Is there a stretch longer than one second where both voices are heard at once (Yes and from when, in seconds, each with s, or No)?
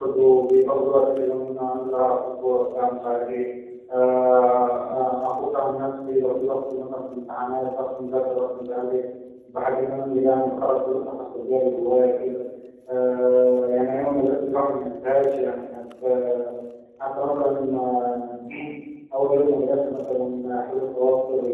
No